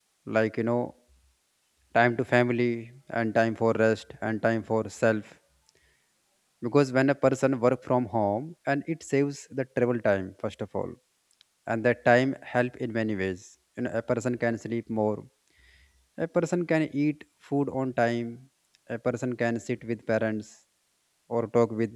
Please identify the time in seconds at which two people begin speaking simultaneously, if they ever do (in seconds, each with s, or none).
none